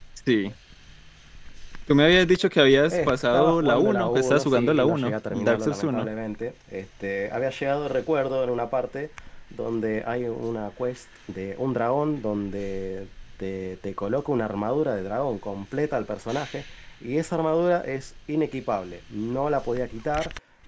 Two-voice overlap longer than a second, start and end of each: 2.9-6.1

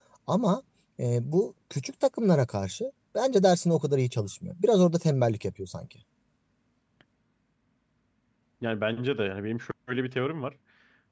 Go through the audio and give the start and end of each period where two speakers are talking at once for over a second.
none

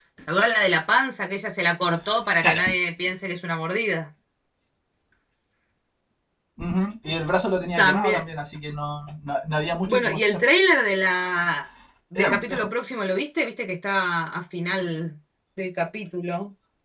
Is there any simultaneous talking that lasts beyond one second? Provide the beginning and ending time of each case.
none

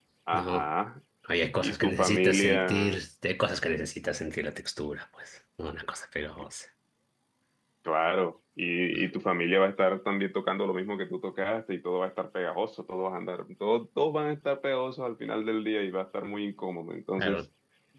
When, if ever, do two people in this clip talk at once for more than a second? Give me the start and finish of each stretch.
1.6-3.0

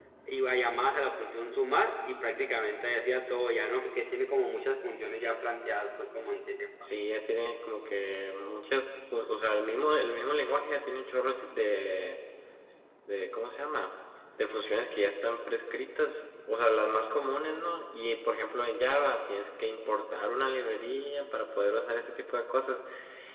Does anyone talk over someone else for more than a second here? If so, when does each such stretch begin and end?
none

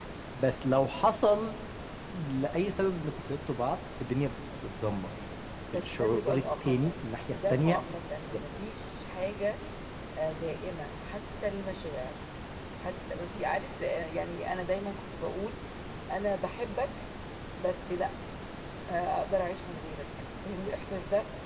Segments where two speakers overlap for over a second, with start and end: 5.7-7.8

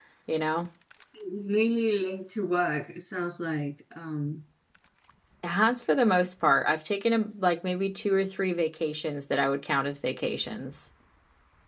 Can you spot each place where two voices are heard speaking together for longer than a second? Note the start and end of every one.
none

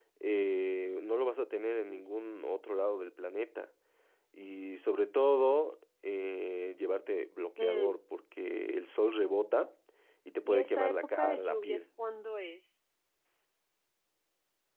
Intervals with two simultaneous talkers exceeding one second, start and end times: 10.4-11.8

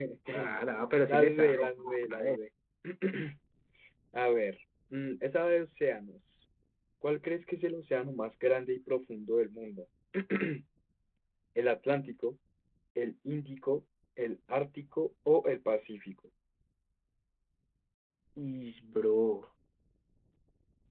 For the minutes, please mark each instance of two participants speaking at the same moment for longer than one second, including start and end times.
1.1-2.4

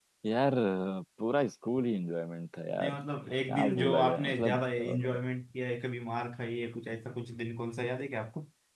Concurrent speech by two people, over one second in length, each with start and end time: 3.5-5.2

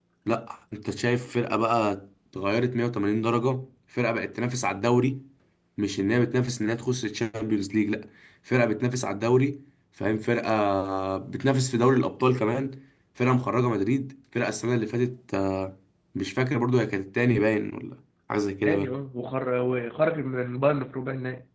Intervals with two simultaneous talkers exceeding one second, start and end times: none

